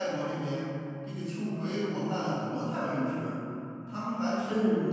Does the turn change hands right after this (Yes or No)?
No